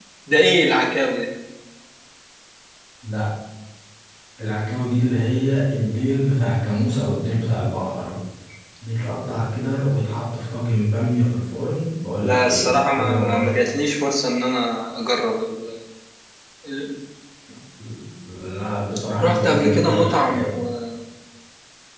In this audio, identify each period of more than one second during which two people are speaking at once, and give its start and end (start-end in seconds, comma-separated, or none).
12.2-13.5, 19.2-20.5